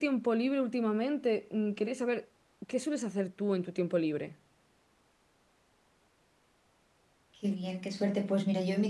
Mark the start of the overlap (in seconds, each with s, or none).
none